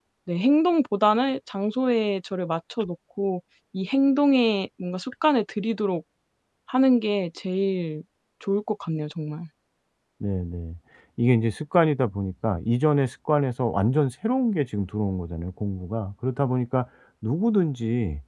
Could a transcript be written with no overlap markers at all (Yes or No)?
Yes